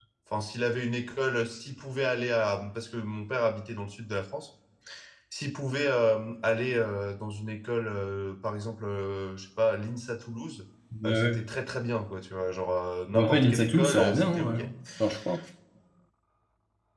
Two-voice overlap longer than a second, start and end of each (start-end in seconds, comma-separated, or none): 13.1-14.6